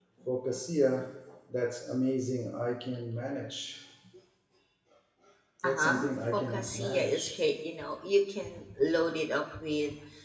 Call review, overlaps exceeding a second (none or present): present